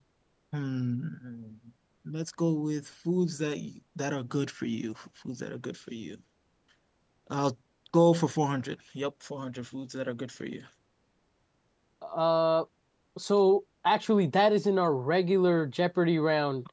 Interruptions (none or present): none